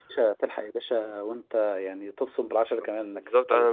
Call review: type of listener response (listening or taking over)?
taking over